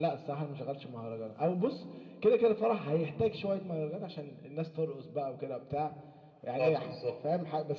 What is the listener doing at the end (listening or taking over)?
listening